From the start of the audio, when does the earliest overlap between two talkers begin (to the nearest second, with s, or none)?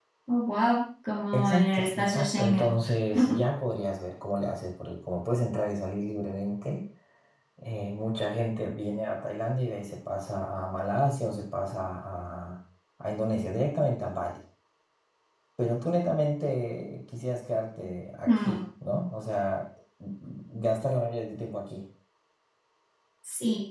1 s